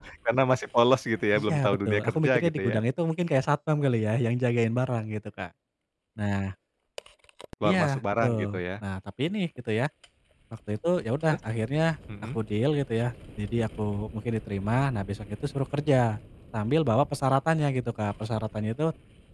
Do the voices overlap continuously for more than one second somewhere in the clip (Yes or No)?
Yes